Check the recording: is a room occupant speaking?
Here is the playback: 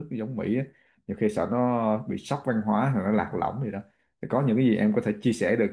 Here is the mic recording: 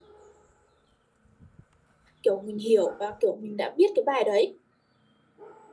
Yes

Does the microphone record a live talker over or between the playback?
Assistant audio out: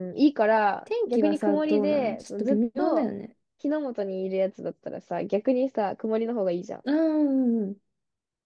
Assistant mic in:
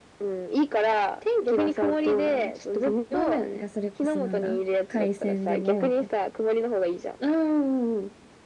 Yes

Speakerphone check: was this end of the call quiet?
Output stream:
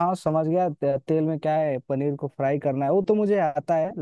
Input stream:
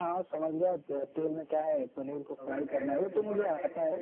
No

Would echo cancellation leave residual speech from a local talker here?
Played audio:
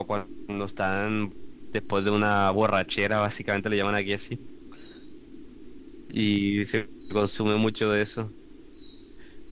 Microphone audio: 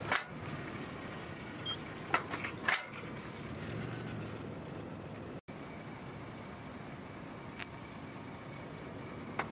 No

